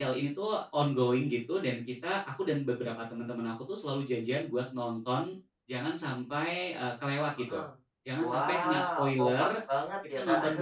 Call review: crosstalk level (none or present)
present